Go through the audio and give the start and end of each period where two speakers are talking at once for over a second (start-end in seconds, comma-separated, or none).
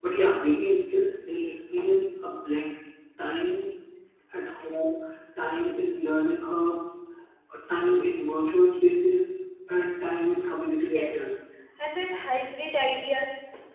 none